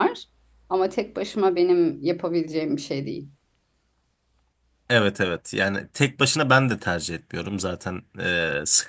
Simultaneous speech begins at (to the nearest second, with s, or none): none